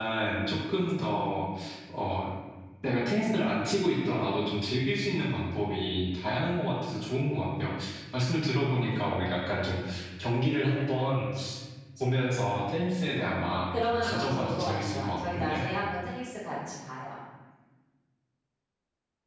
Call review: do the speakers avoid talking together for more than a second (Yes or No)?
No